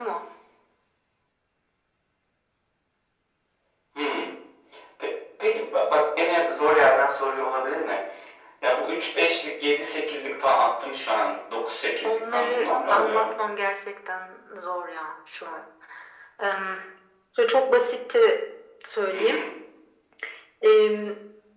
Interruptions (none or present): present